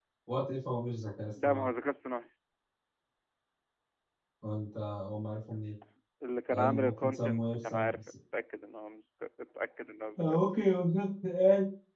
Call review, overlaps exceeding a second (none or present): present